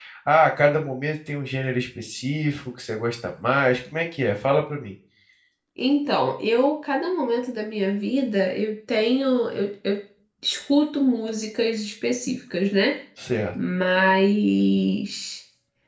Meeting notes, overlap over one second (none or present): none